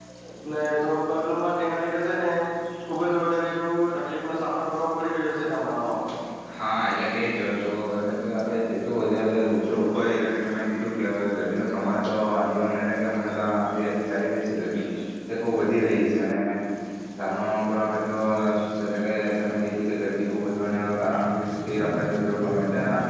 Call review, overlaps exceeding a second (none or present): none